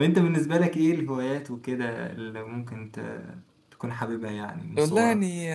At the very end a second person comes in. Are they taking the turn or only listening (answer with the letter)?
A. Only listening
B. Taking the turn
B